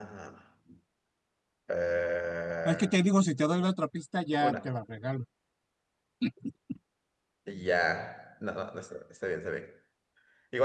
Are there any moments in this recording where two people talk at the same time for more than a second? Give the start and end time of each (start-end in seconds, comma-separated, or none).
none